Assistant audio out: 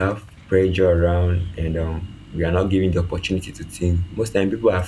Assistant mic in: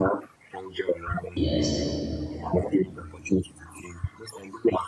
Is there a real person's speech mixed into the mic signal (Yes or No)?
Yes